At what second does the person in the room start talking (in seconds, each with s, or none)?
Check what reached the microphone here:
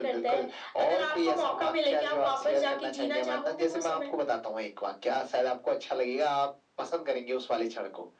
none